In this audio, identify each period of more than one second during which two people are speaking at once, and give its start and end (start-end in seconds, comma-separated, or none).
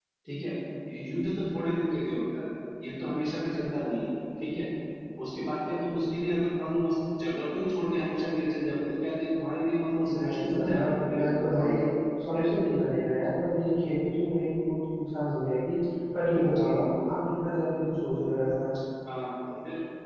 10.1-11.8